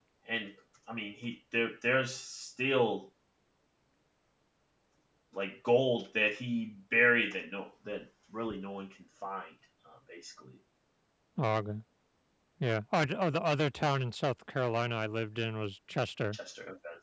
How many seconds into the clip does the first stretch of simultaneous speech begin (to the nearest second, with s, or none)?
none